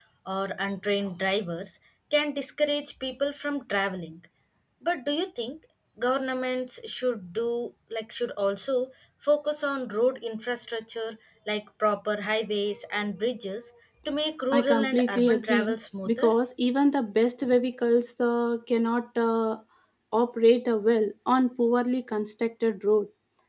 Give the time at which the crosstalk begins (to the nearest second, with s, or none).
15 s